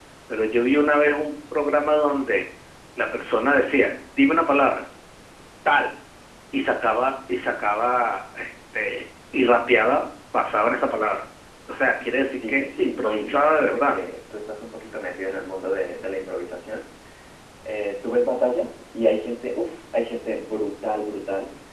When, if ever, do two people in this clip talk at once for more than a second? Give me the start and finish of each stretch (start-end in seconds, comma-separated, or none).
12.3-13.9